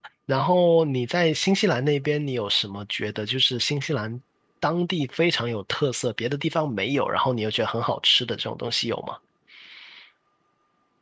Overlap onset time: none

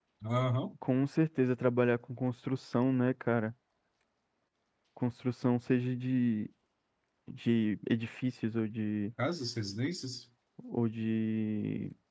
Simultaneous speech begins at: none

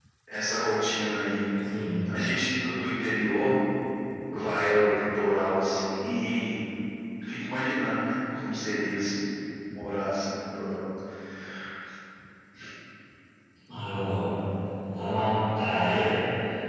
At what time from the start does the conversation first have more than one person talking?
none

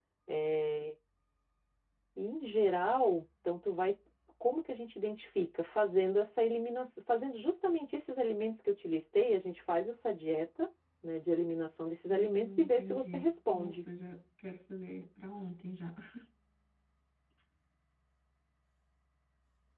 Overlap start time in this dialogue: 12.1 s

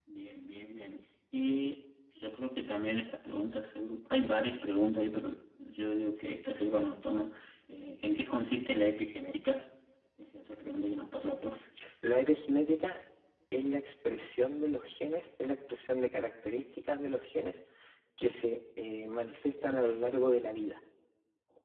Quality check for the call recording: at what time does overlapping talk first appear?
none

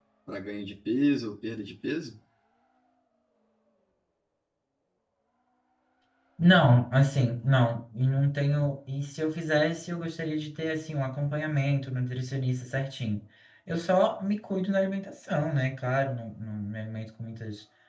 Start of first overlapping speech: none

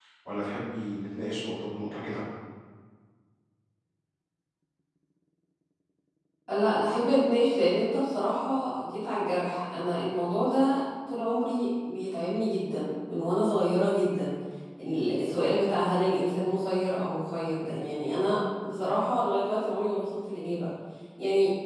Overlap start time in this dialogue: none

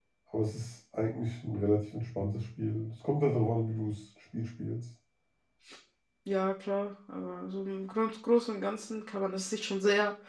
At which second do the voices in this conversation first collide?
none

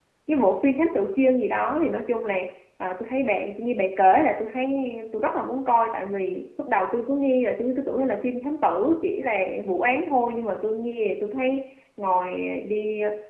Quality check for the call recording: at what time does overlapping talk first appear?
none

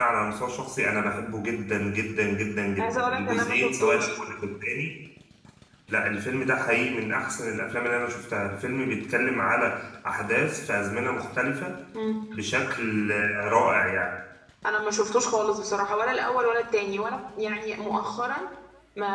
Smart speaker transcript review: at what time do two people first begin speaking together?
2.8 s

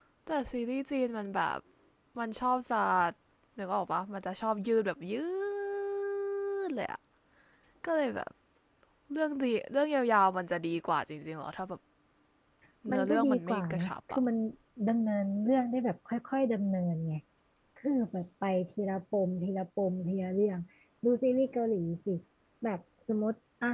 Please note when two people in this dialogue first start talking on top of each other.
12.9 s

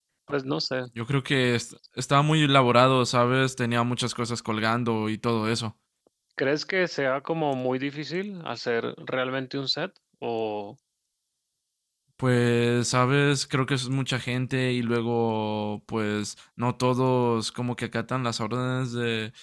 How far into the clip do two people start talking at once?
none

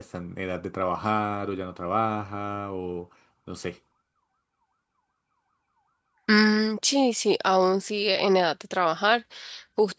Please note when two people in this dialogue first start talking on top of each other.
none

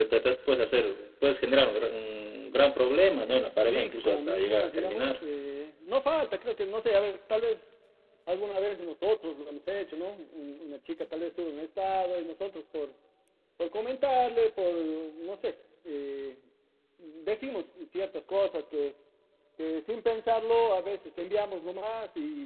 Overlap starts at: 3.7 s

